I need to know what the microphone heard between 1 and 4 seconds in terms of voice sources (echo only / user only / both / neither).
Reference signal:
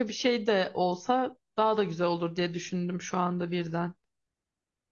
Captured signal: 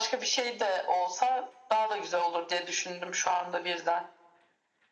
echo only